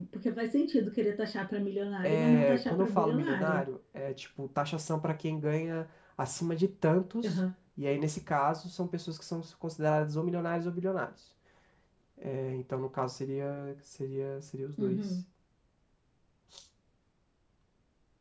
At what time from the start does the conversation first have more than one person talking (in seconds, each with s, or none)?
2.0 s